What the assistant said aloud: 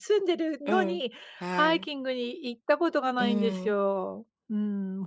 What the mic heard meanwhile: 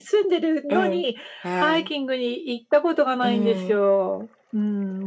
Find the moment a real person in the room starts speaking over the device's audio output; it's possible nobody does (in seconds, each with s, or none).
none